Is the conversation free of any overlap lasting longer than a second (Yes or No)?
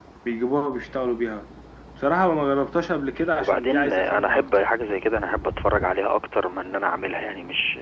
No